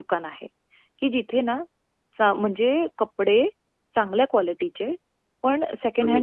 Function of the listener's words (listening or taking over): listening